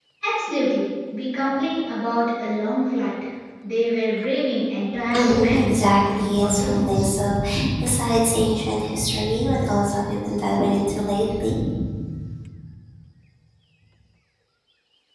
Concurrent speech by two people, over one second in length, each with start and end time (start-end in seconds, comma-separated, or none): 5.1-7.1